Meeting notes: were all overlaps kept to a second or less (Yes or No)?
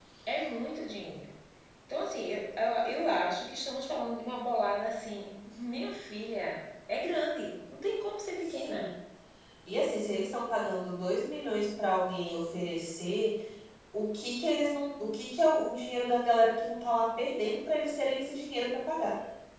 Yes